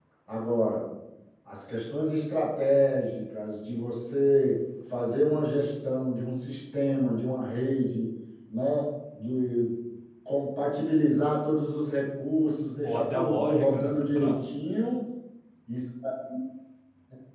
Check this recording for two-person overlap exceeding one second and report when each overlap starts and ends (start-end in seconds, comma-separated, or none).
12.8-14.4